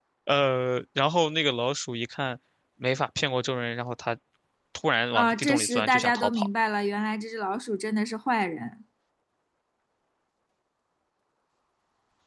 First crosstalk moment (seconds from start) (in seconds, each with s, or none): 5.1 s